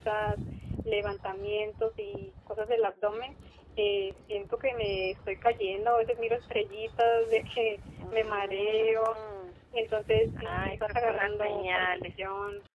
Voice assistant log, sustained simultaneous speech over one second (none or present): present